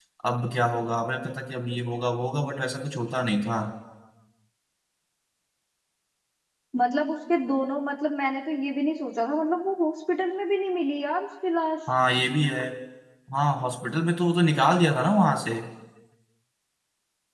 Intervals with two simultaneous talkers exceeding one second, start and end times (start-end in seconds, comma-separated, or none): none